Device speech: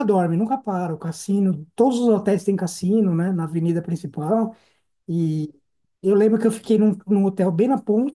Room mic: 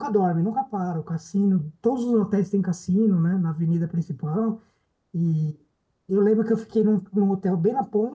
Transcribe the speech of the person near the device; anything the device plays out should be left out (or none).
none